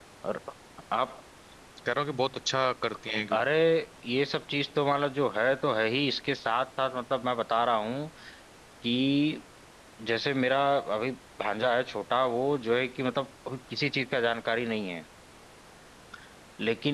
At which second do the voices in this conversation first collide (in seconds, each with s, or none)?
none